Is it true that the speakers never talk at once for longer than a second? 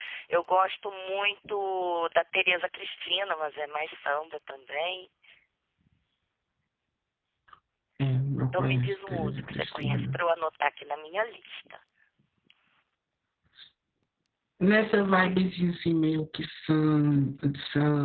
No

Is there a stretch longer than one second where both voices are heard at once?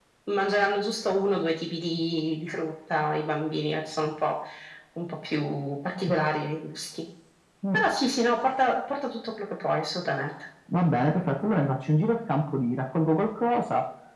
No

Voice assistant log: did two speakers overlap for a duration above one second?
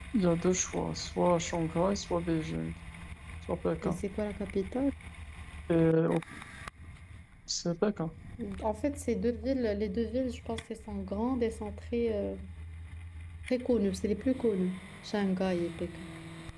No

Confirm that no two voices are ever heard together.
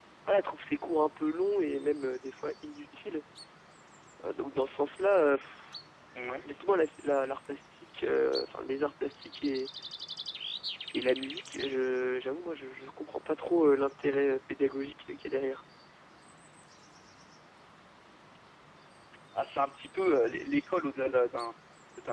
Yes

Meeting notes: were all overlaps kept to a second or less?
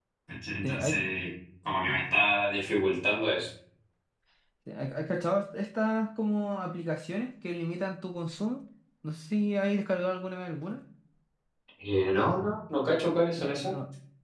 Yes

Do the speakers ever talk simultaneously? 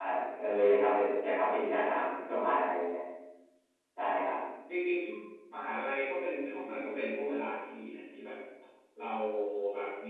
No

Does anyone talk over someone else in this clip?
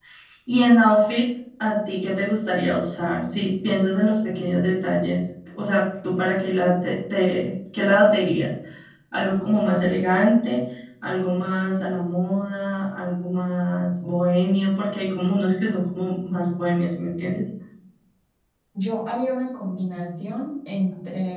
No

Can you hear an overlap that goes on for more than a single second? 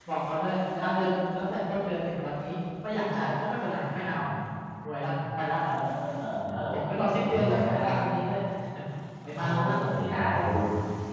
Yes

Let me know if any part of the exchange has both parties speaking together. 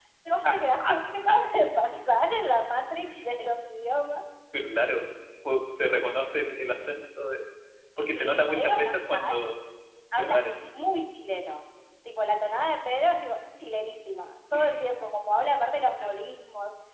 Yes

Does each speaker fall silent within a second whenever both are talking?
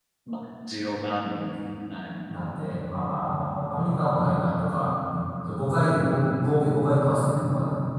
Yes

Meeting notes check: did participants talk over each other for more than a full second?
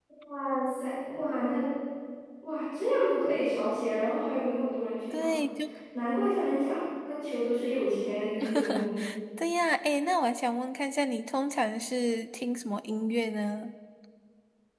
No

